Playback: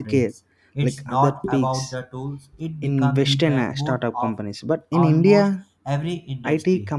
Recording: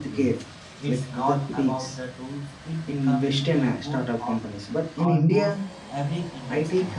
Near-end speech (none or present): none